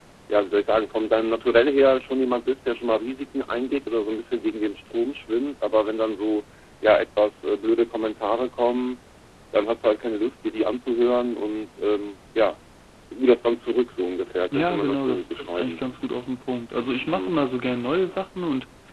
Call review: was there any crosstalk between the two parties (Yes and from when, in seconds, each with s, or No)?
Yes, from 14.5 s